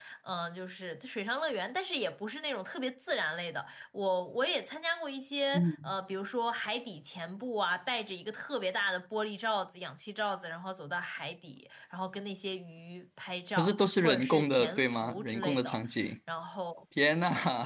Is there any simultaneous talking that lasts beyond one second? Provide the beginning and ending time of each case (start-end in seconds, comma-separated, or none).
13.6-15.8